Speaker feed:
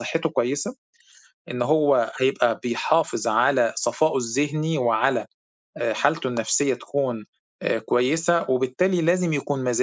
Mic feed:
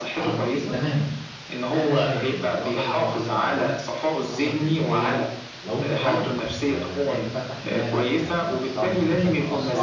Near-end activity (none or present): present